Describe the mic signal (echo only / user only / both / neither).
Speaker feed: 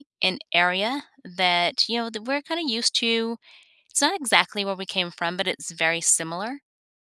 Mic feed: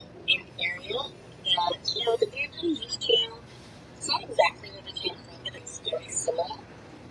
echo only